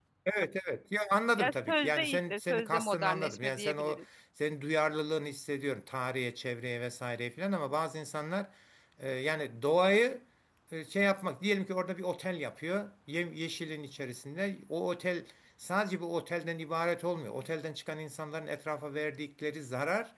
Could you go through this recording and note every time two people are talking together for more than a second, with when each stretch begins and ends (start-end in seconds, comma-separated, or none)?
1.4-4.0